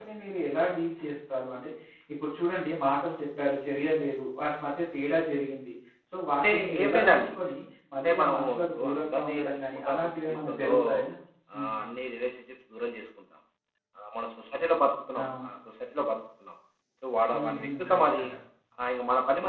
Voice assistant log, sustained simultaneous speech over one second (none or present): present